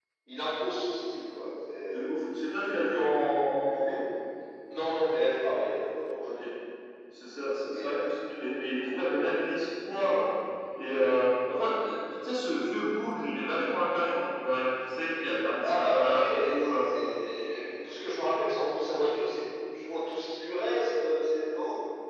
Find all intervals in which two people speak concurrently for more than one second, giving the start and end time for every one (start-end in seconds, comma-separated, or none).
15.6-16.9